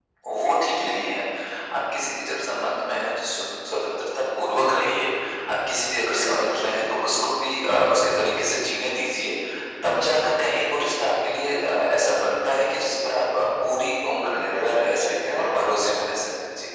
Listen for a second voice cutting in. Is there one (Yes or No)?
Yes